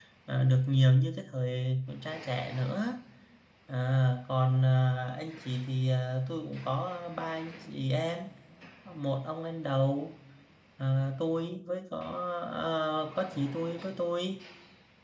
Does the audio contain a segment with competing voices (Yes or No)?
No